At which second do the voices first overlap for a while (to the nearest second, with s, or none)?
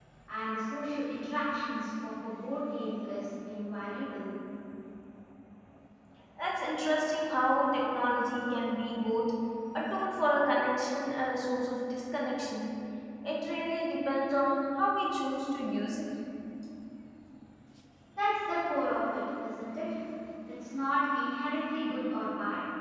none